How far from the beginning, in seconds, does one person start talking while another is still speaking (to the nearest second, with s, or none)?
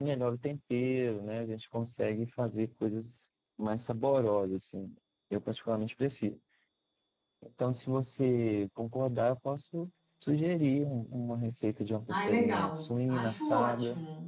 12 s